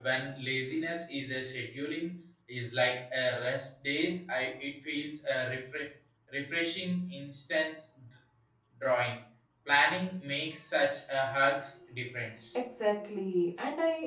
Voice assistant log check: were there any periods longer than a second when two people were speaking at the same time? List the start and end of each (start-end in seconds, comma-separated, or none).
none